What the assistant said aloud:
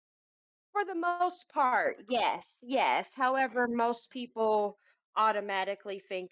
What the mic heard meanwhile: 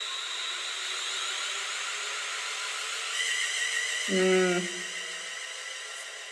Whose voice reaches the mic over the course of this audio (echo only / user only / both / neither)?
user only